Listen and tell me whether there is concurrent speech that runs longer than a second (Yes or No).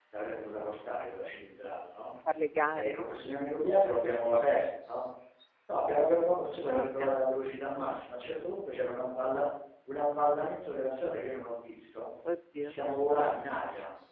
No